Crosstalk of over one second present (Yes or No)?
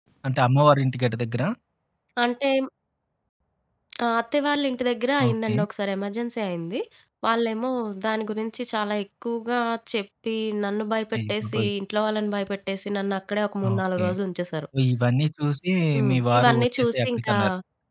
Yes